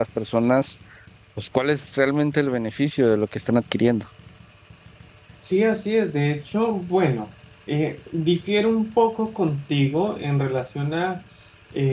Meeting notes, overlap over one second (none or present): none